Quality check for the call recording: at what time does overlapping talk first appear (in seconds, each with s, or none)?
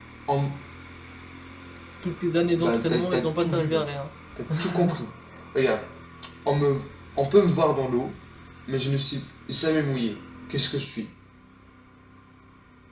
2.6 s